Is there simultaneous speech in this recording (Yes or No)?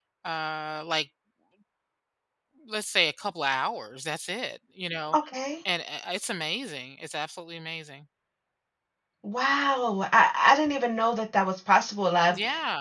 No